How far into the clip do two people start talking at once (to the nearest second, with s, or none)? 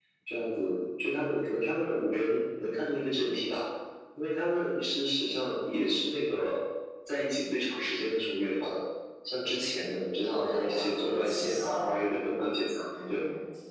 10 s